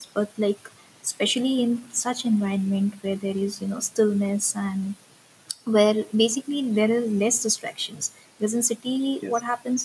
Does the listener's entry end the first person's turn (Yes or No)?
No